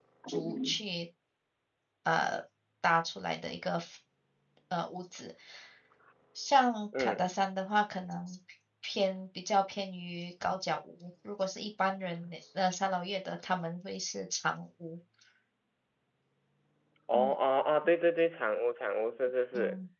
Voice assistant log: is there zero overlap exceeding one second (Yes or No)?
Yes